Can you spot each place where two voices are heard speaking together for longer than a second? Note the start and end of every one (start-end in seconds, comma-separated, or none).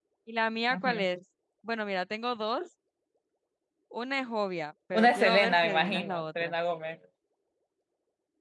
4.9-6.5